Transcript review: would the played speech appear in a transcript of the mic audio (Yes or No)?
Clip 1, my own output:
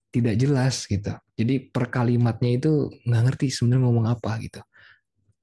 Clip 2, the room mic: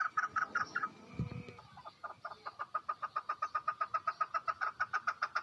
No